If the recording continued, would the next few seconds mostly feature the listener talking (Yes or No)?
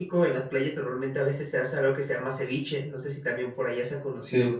Yes